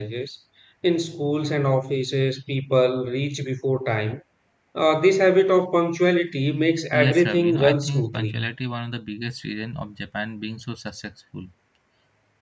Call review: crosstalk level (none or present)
present